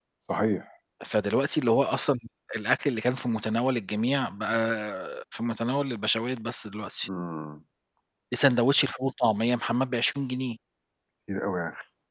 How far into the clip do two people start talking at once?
none

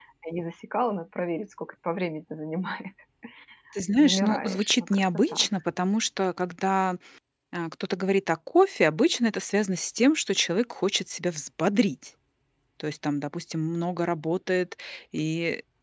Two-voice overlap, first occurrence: 4.0 s

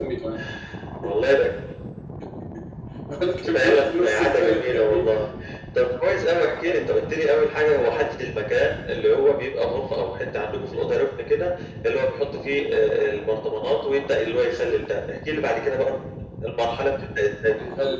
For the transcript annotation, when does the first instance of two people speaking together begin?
3.4 s

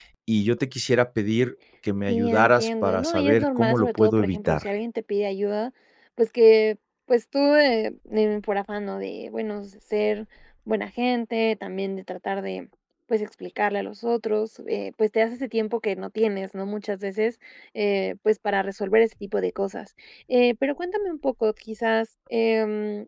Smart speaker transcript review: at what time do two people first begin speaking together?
2.1 s

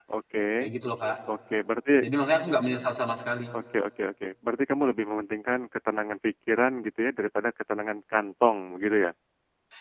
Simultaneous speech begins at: none

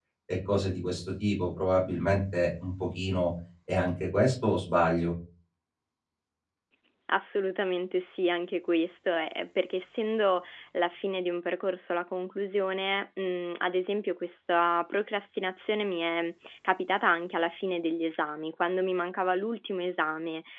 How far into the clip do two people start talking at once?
none

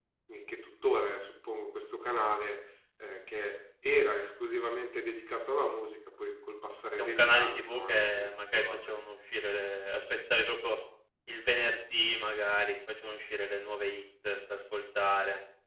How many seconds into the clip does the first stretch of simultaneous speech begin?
6.9 s

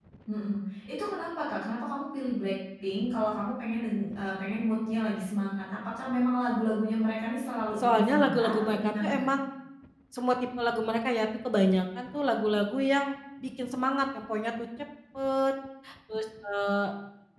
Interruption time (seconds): 7.8 s

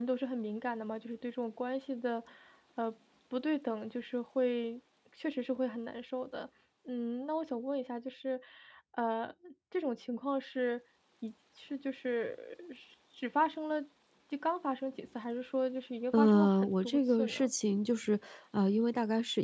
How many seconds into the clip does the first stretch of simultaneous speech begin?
16.1 s

